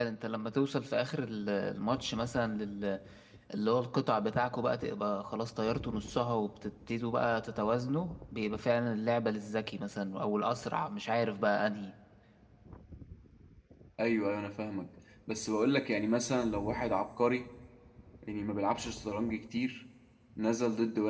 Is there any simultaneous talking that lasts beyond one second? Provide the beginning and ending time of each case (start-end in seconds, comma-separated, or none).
none